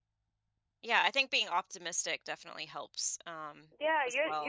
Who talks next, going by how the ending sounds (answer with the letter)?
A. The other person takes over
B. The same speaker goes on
A